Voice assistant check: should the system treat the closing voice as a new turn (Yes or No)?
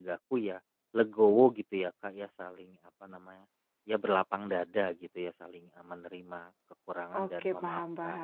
Yes